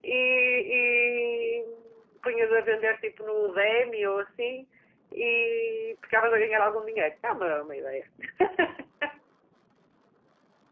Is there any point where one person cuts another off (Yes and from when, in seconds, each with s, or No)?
No